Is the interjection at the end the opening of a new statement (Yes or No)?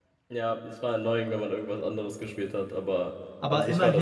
Yes